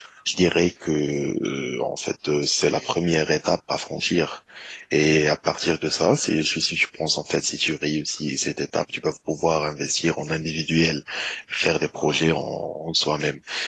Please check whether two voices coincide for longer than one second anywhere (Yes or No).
No